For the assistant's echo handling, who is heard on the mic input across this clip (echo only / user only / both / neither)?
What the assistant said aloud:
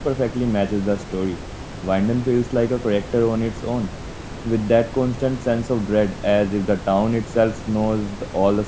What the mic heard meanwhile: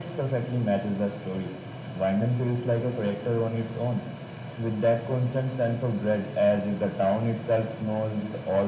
echo only